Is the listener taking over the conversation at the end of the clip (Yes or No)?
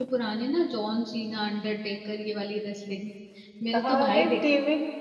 Yes